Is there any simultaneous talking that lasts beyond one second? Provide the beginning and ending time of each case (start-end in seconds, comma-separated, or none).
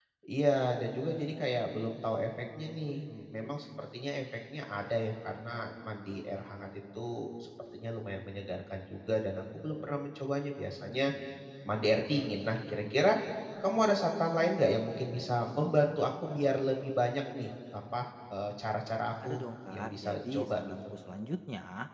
19.2-20.8